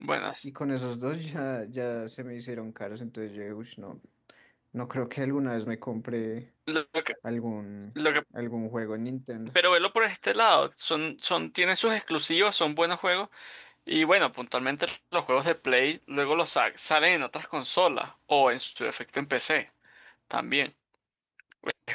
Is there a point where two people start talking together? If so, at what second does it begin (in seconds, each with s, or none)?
none